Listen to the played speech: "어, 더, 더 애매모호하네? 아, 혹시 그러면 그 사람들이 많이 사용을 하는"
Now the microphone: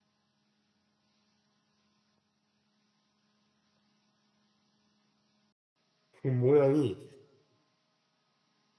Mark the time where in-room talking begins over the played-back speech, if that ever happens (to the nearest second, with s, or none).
6 s